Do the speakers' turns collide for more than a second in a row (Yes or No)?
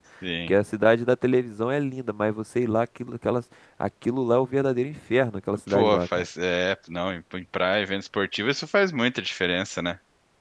No